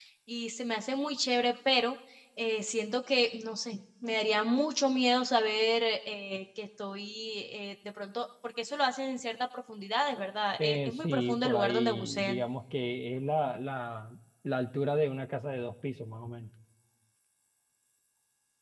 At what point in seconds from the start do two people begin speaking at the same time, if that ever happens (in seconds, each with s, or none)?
10.6 s